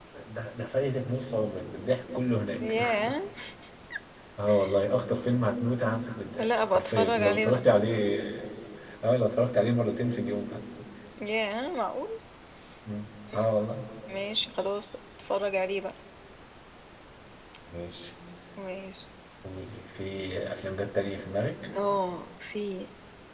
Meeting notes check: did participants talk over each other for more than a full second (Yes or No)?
Yes